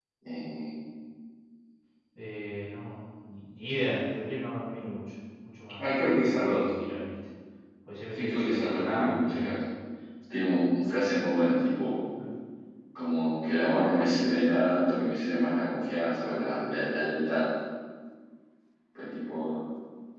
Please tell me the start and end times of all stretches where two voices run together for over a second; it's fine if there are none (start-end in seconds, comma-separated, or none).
8.1-9.6